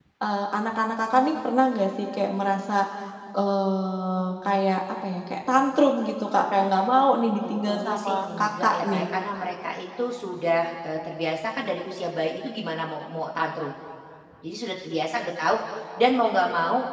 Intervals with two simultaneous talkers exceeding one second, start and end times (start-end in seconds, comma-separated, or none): 7.5-9.1